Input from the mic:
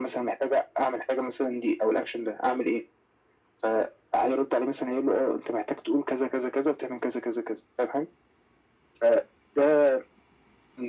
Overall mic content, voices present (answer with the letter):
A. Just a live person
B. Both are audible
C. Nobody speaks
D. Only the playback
D